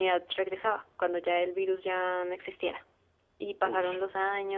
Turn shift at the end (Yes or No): No